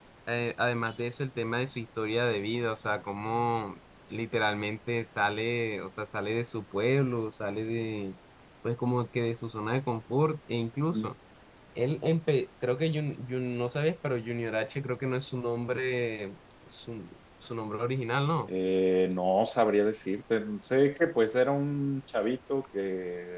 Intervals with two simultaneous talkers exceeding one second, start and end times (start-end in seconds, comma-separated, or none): none